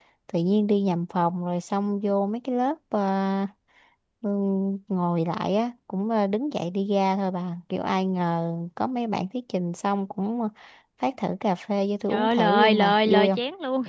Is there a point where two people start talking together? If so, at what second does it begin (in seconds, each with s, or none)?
12.1 s